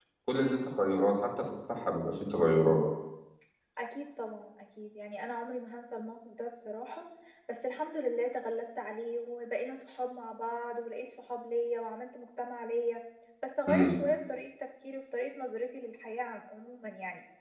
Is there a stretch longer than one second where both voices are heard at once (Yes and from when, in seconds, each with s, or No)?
No